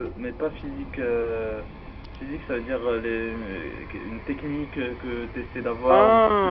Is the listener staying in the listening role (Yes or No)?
Yes